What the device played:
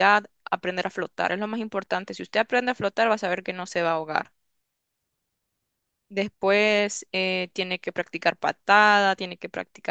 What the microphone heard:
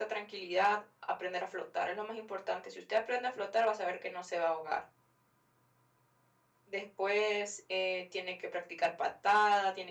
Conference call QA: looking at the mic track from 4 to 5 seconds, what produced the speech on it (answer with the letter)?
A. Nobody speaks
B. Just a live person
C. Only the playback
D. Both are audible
C